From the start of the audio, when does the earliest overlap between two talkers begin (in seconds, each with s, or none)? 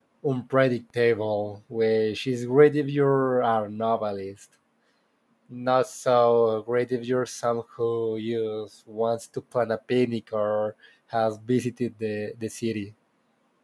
none